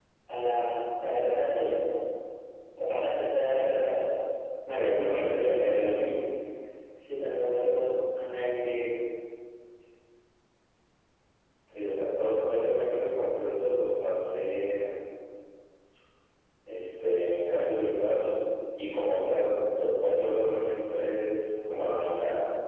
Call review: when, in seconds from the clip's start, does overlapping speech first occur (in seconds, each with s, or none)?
4.7 s